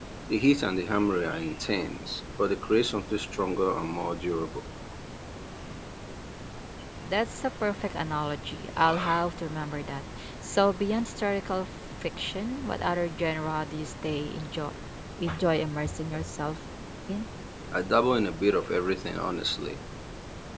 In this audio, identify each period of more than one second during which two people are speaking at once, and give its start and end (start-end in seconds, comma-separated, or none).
none